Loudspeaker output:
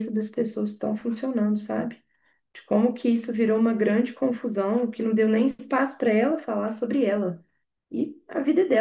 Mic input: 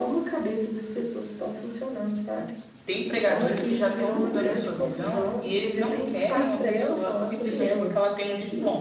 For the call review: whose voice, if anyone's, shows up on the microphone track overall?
both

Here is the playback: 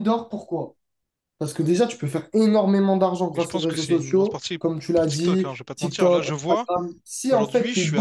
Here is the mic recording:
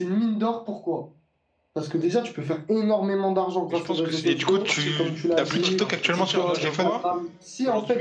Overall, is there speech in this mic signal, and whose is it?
both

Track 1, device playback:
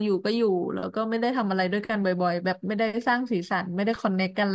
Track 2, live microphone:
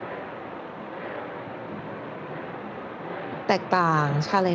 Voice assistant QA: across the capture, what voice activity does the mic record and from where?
user only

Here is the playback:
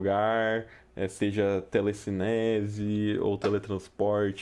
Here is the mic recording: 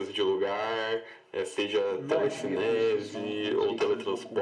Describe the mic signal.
both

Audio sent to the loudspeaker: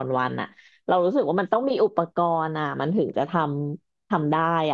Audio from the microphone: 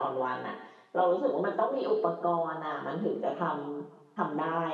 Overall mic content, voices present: echo only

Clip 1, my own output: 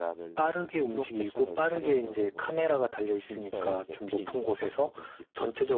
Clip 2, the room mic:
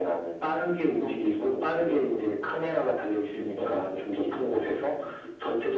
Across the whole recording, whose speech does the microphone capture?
echo only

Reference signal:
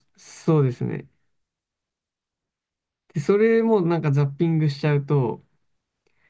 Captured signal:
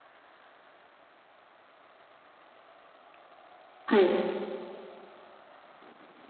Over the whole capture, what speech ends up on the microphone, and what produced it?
user only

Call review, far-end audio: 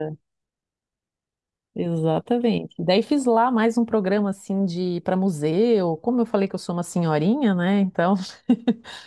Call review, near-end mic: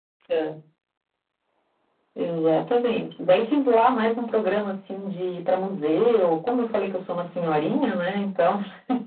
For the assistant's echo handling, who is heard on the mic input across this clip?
echo only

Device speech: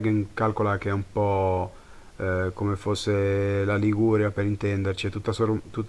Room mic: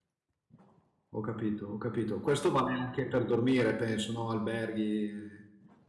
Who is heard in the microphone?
user only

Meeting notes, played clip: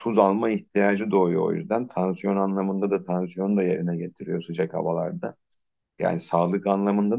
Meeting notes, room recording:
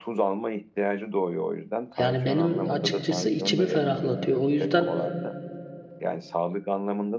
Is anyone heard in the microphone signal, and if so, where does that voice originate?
both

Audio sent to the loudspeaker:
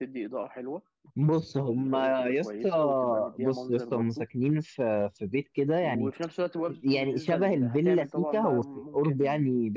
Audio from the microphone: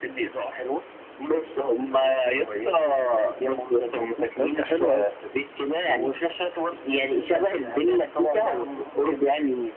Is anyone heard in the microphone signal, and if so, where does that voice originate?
both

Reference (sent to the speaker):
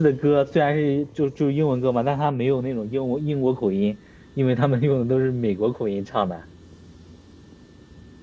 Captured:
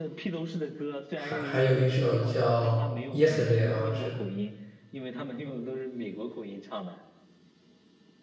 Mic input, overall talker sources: both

